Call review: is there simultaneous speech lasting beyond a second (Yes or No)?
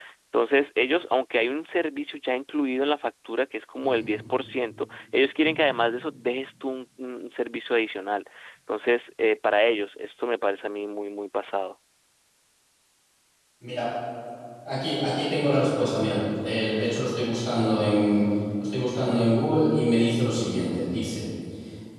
No